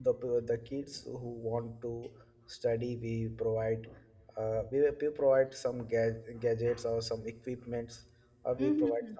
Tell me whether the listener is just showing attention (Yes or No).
Yes